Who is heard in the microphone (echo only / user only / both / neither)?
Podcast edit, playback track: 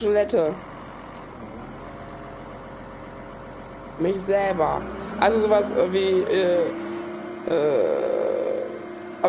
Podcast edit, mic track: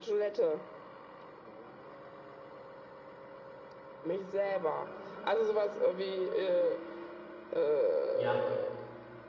both